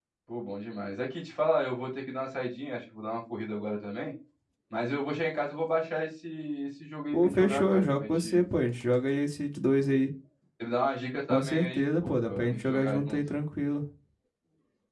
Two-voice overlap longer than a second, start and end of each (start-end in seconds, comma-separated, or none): 7.1-8.4, 11.3-13.2